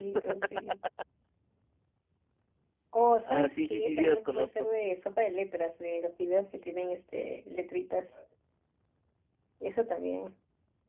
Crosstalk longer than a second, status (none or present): present